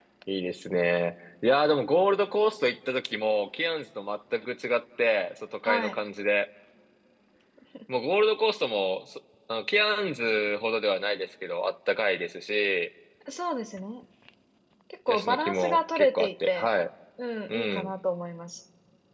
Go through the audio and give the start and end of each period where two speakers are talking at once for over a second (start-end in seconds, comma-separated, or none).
15.1-16.7